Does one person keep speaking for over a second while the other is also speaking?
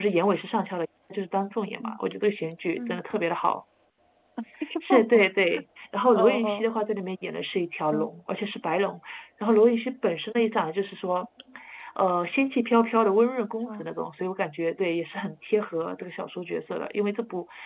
No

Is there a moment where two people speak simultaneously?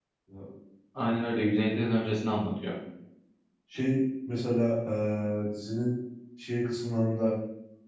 No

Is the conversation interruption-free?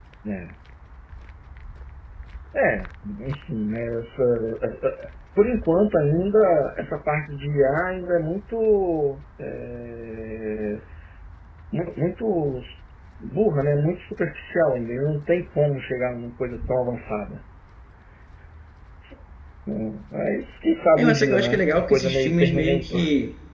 No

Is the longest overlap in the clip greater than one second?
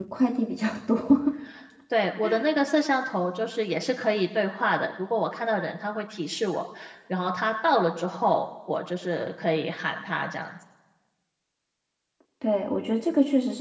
No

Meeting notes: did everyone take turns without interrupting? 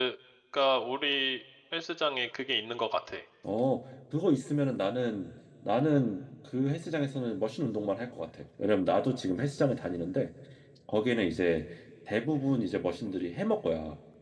Yes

